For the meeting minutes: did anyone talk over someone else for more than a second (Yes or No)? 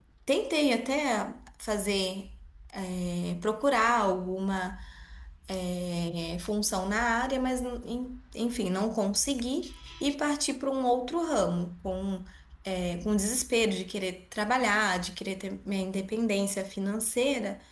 No